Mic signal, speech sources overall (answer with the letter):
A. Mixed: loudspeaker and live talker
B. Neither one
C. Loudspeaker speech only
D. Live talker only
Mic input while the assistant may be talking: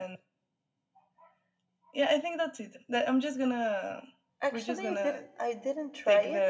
A